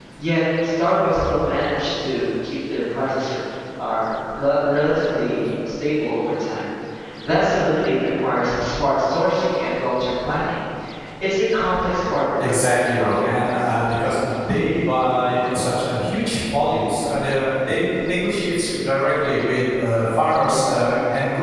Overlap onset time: 12.4 s

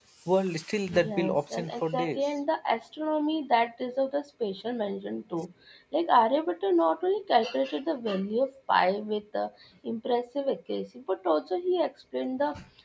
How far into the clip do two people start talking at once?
1.1 s

